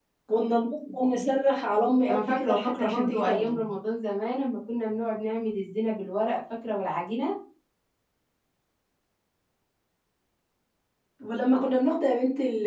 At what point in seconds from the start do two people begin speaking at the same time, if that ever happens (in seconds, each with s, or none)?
2.1 s